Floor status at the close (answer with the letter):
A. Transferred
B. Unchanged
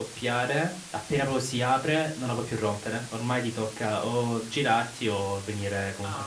A